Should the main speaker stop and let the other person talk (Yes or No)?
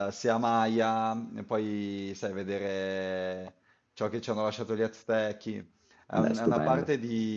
No